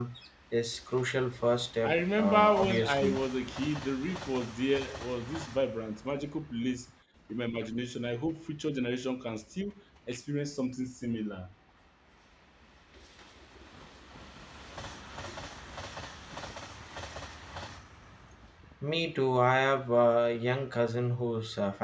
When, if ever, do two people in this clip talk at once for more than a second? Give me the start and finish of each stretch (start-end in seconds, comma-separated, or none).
1.8-3.2